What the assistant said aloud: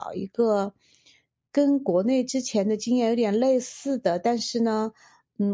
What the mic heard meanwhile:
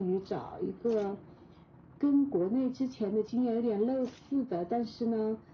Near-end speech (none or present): none